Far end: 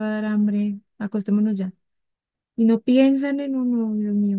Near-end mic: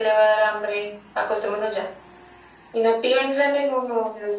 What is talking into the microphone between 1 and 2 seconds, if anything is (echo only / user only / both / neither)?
echo only